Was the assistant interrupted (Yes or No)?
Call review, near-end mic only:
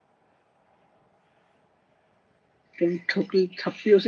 Yes